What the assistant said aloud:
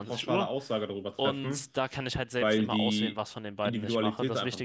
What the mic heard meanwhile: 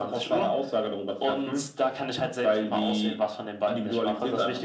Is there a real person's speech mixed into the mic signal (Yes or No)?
No